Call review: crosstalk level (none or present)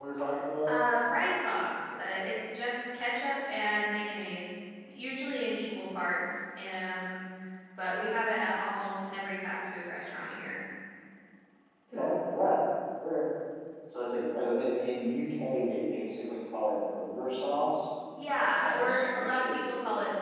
present